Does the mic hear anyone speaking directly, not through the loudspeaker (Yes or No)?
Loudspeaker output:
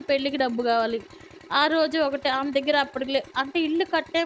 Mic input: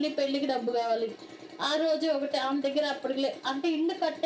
No